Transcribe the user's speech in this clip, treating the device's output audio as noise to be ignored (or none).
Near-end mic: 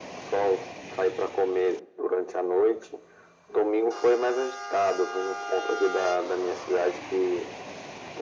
none